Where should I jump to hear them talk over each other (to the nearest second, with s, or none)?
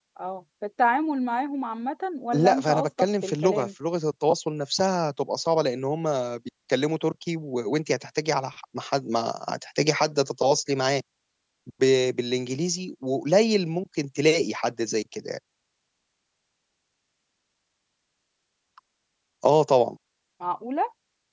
2 s